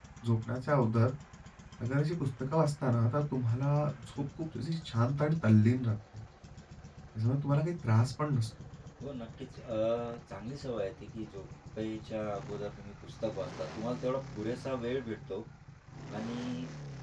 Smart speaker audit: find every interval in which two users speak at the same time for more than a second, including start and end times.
none

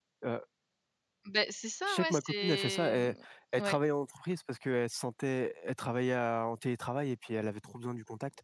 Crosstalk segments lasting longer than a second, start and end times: 1.9-3.1

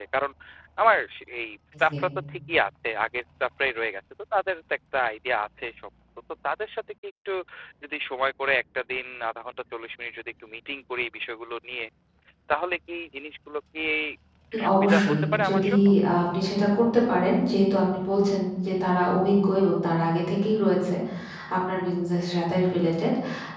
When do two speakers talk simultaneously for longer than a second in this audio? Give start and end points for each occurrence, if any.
14.5-15.7

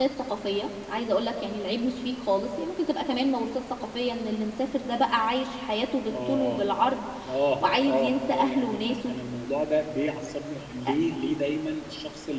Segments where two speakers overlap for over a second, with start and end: 7.8-9.1

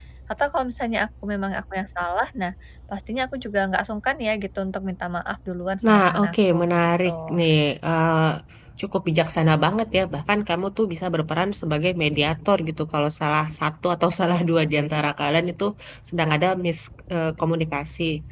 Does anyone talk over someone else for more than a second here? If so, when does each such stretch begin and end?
5.9-7.4

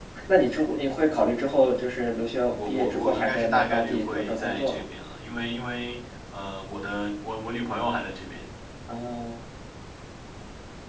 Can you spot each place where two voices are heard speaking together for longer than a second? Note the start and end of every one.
2.5-4.8

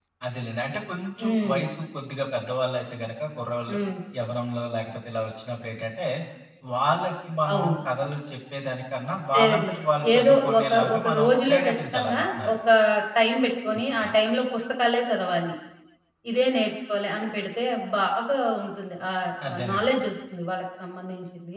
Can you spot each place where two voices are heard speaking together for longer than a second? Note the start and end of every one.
10.2-12.6

